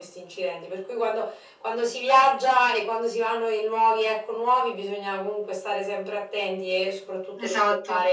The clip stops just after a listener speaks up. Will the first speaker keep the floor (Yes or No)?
Yes